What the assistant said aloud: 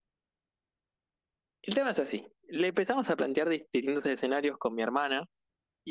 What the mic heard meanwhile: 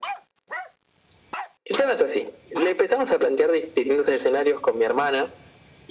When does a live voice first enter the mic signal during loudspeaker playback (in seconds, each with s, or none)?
none